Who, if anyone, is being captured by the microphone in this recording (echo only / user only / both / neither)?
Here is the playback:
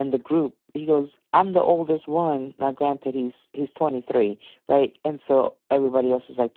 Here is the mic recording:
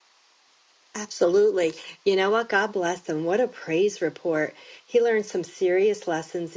user only